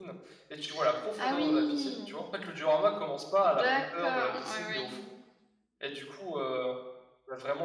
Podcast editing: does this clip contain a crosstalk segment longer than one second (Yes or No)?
Yes